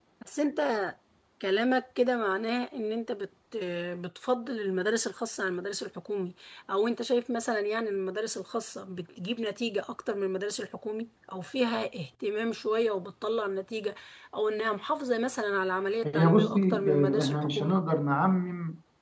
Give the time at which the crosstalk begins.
16 s

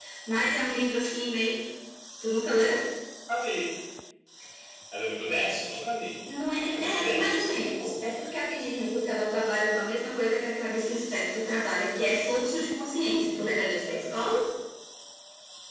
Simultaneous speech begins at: 7 s

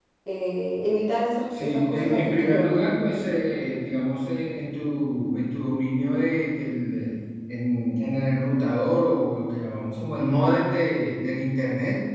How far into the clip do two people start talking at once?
2 s

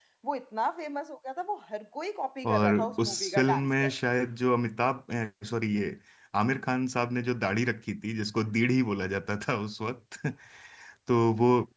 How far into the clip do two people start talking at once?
2 s

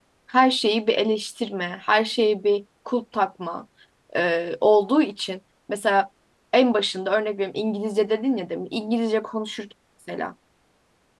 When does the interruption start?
none

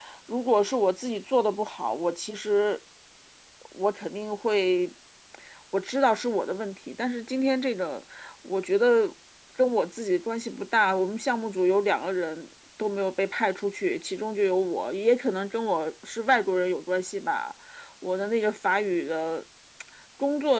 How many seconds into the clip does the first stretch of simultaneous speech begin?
none

